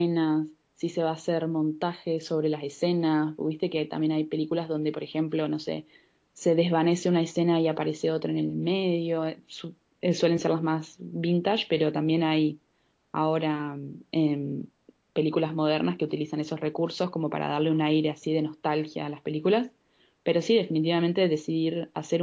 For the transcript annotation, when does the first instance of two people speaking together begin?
none

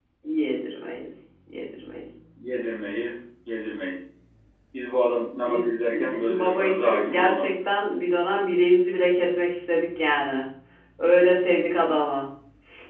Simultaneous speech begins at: 5.5 s

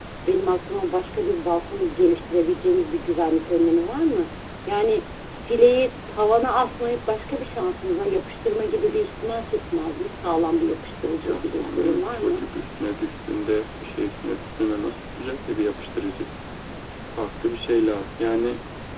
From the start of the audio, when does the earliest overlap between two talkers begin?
11.2 s

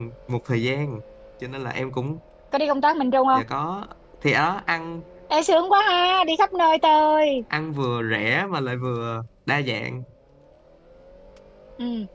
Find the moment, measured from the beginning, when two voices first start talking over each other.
none

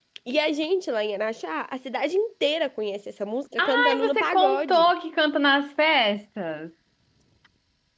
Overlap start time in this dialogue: 3.6 s

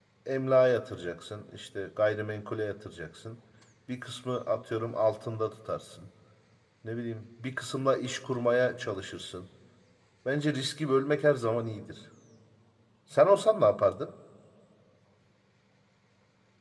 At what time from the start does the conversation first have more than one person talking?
none

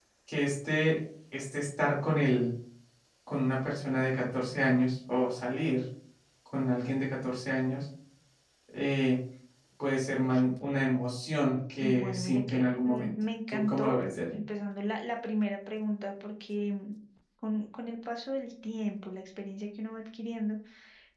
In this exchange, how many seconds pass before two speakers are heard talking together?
11.8 s

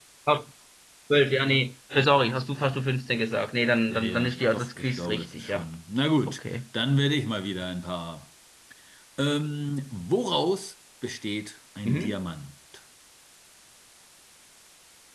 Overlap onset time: 3.9 s

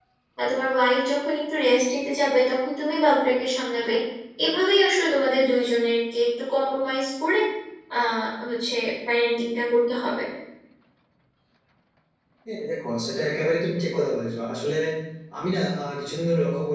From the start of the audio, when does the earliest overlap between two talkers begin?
none

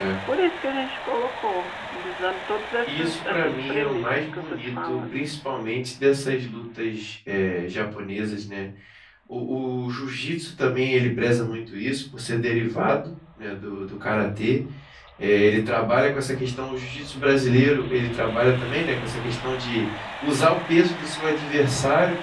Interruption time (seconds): 2.9 s

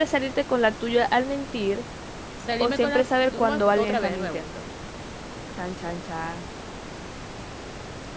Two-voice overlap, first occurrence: 2.6 s

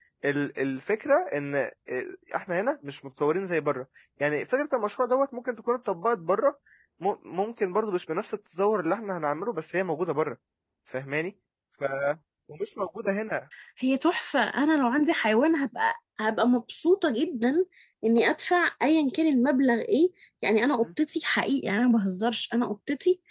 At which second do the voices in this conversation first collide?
none

